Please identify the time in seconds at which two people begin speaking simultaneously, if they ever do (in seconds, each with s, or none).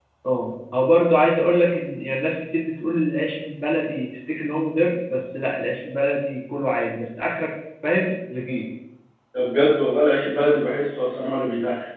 none